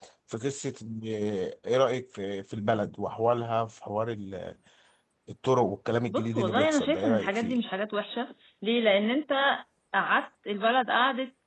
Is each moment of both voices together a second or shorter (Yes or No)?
No